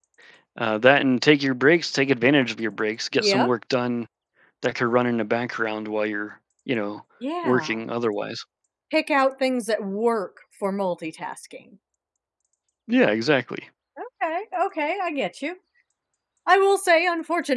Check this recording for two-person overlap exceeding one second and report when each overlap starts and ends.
none

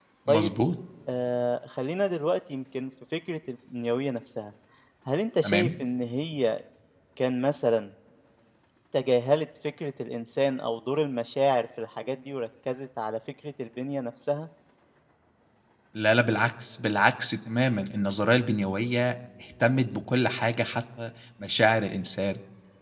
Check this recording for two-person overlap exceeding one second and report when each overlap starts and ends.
none

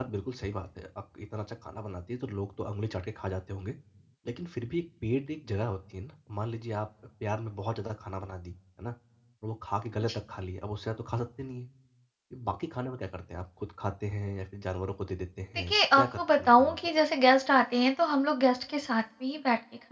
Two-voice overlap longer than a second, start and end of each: 15.6-16.8

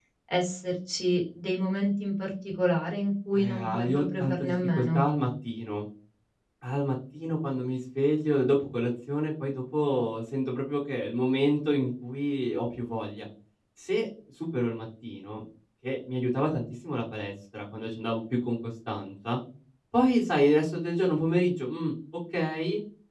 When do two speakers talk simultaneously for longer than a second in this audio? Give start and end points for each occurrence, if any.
3.3-5.0

